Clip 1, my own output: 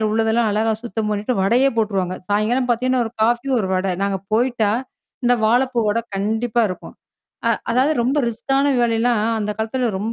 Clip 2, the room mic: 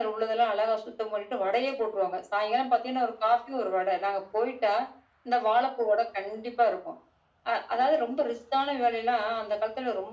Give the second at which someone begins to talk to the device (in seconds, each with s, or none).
none